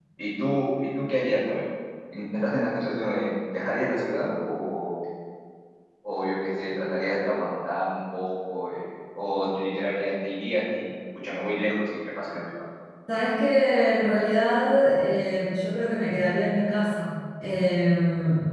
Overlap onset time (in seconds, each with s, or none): none